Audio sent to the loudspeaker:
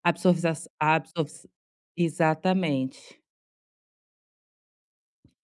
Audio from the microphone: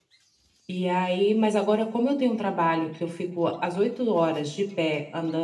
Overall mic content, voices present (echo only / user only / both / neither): user only